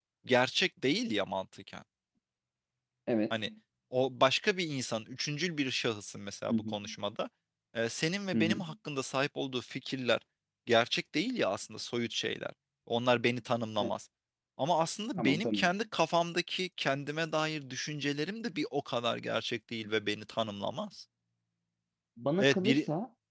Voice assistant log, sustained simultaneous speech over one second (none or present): none